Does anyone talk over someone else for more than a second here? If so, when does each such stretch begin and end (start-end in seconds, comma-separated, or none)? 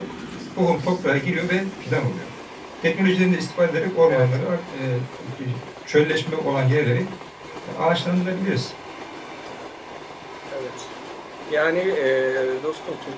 none